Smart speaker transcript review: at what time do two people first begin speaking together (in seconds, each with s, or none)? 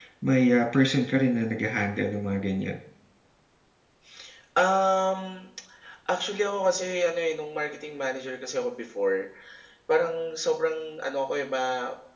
none